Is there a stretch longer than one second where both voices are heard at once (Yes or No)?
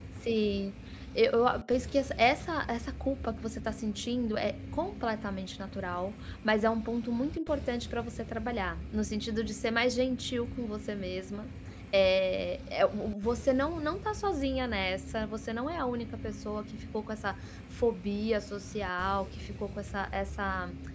No